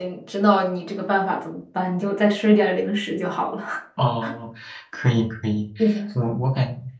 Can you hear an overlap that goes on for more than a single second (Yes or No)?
No